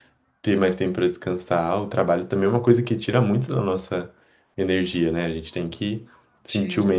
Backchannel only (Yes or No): Yes